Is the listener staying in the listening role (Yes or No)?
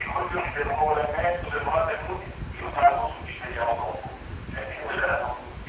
Yes